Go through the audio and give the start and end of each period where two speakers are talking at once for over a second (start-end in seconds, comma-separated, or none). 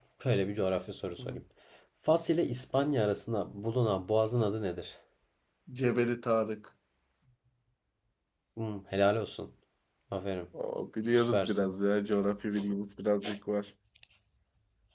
none